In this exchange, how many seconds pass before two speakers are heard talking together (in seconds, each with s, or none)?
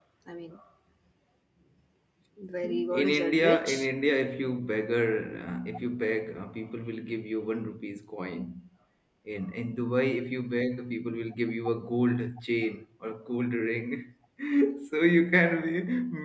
2.6 s